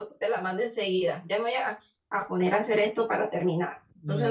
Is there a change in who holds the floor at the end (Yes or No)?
Yes